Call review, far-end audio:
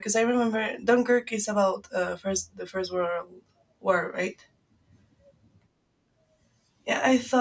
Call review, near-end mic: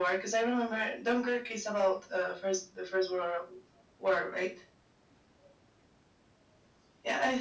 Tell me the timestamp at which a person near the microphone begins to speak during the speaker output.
none

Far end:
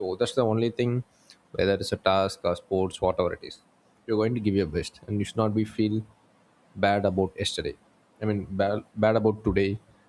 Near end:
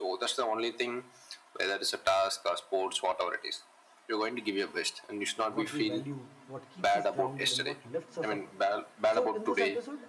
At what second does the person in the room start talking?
5.5 s

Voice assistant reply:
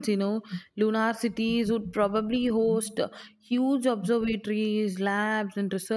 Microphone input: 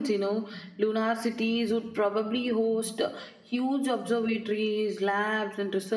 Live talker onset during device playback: none

